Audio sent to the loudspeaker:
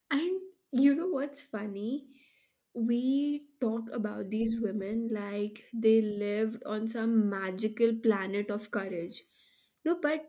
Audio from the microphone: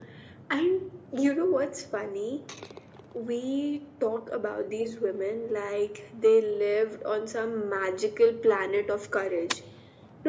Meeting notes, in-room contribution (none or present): none